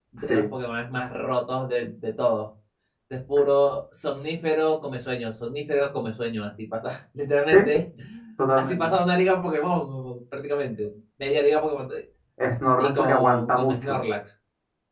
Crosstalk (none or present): present